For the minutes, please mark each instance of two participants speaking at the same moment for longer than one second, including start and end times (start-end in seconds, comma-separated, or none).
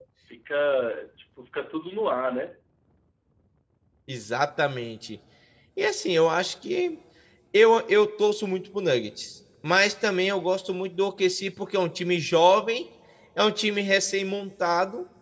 none